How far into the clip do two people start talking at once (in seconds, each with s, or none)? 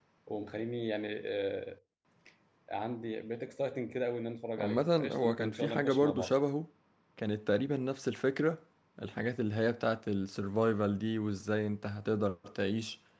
4.6 s